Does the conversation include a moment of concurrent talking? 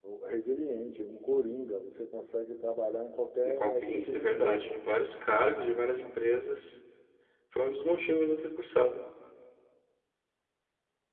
Yes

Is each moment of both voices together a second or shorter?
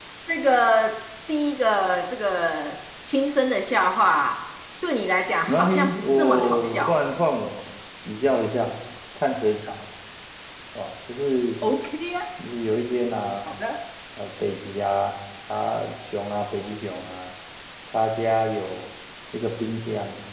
No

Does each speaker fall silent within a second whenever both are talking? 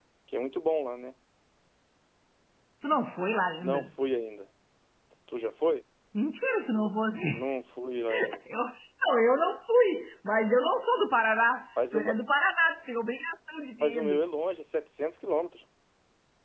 Yes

